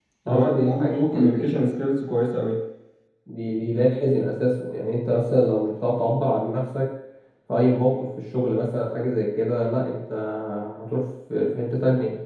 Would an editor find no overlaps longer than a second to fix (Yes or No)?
No